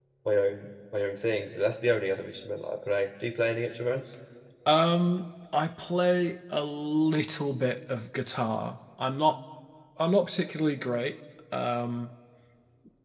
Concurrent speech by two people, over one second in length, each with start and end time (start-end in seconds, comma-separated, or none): none